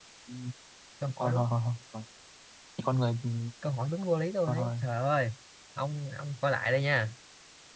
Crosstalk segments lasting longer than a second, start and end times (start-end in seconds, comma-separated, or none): none